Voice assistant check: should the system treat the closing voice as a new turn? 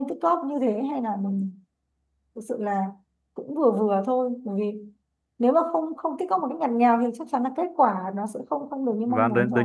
Yes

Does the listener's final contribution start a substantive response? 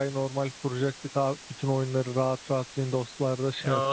Yes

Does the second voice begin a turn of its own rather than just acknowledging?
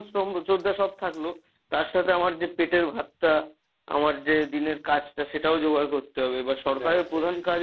No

